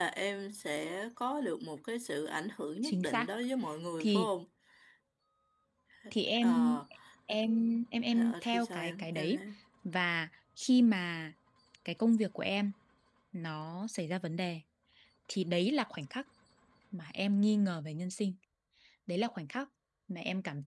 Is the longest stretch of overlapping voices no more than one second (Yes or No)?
No